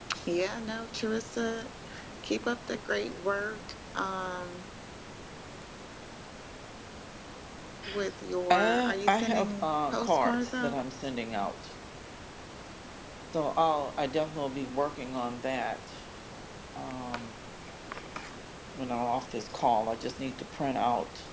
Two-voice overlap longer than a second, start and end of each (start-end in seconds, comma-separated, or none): 8.5-10.8